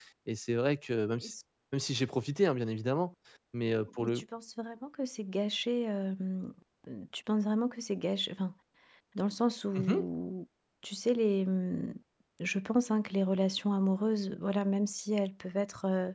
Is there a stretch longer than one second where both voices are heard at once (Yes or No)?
No